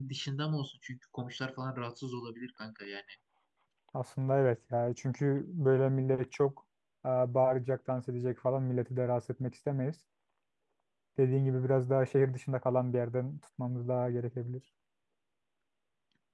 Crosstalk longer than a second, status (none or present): none